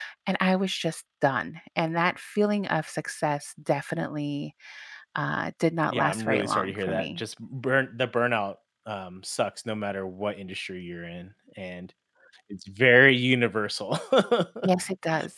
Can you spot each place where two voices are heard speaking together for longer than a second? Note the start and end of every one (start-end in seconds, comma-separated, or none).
5.9-7.2